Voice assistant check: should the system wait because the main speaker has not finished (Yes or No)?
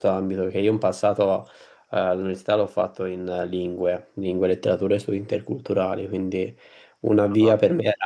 Yes